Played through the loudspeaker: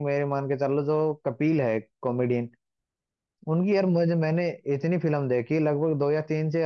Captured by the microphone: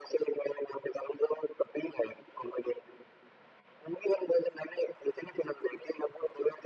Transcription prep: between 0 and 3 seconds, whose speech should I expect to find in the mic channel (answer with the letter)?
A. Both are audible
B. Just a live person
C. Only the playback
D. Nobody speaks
C